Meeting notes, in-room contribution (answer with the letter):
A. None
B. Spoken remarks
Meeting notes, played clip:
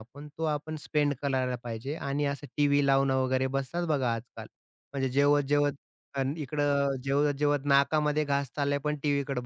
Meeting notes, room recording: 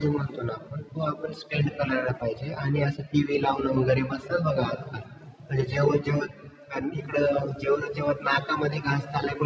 A